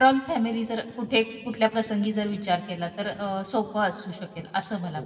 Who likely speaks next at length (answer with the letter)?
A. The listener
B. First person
A